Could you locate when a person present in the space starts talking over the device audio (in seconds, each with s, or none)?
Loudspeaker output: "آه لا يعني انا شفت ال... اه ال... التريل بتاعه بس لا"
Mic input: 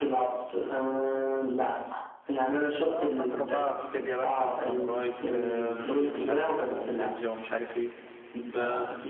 2.8 s